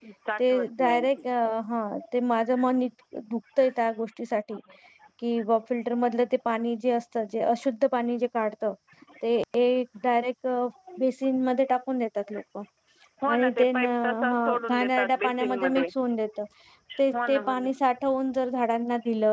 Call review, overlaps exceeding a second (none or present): present